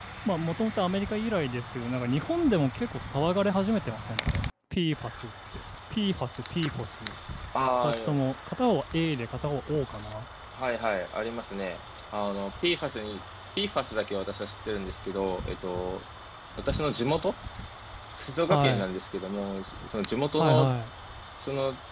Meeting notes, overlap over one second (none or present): none